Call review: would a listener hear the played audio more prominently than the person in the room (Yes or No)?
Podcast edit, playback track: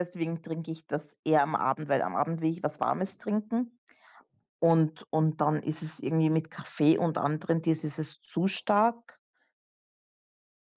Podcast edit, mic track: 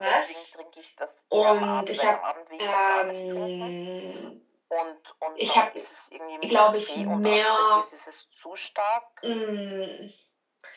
No